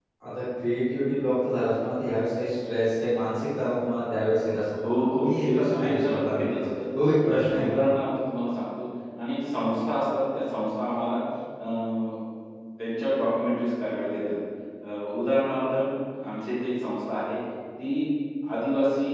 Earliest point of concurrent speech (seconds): 4.7 s

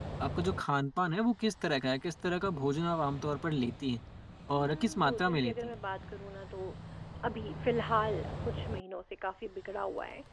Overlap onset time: 4.6 s

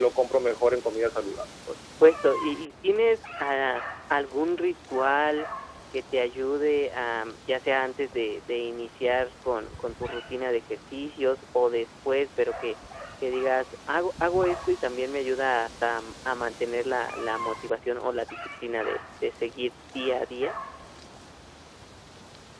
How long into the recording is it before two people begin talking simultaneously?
none

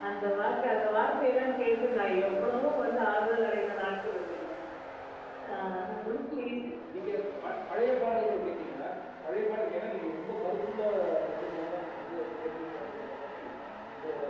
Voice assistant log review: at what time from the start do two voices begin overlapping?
none

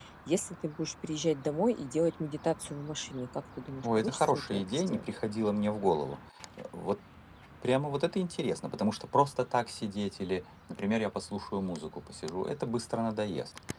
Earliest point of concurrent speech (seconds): 3.8 s

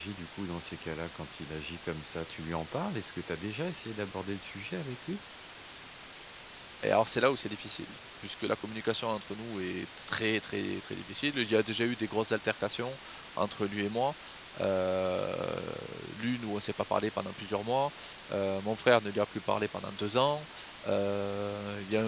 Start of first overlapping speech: none

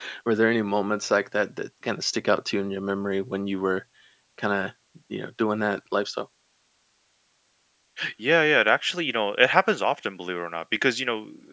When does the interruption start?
none

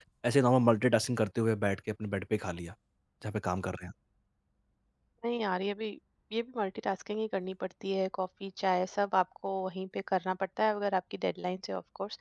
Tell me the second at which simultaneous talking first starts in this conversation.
none

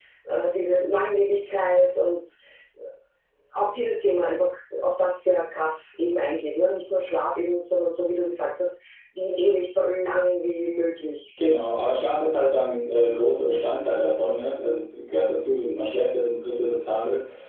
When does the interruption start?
none

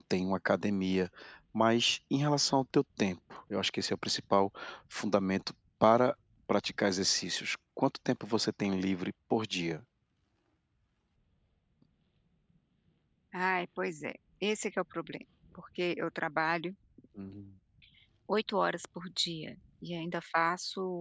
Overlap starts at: none

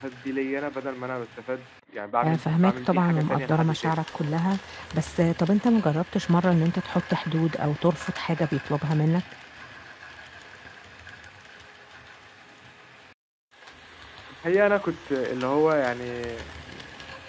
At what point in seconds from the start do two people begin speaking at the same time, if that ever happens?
2.2 s

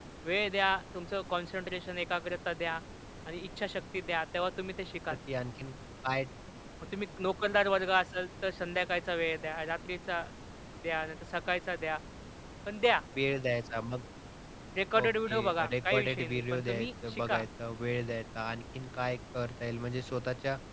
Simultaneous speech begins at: 15.0 s

